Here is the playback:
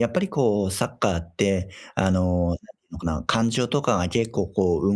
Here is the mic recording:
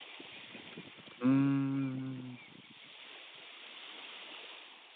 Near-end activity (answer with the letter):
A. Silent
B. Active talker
B